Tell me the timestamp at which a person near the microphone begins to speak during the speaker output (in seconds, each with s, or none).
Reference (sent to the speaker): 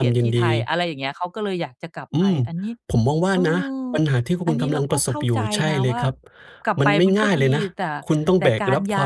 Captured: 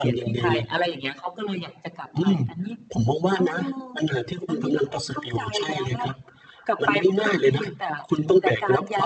none